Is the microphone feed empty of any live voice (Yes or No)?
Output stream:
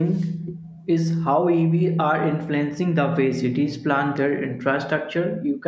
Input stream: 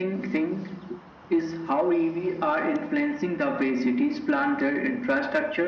Yes